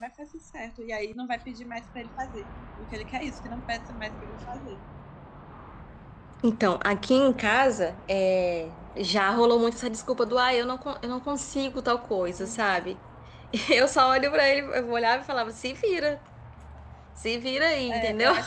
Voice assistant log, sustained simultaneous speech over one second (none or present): none